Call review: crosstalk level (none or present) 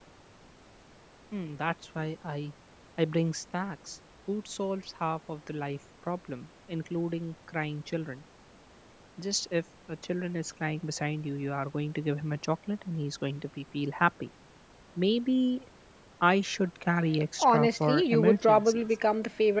present